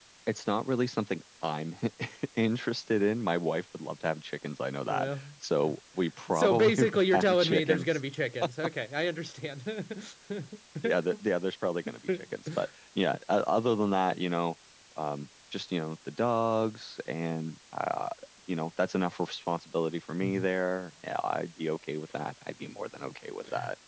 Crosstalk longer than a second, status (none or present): present